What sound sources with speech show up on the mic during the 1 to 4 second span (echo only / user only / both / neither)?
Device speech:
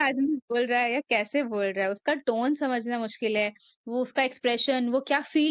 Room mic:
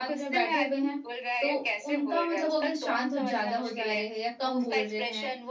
both